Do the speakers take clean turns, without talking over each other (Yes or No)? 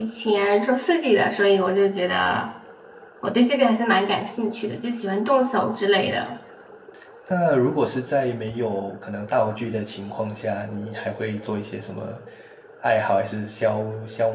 Yes